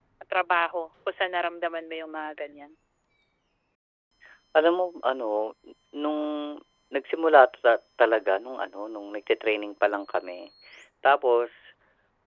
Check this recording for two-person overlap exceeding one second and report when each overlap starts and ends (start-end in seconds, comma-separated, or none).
none